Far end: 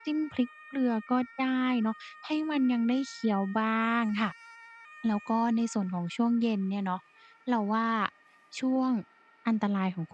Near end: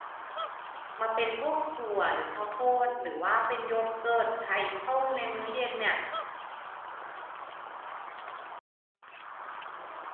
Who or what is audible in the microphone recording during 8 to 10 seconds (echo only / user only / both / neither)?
neither